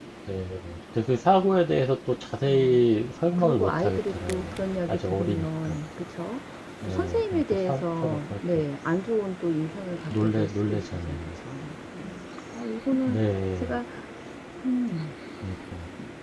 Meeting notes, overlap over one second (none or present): present